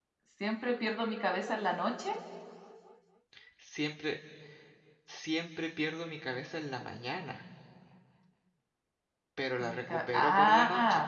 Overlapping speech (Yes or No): Yes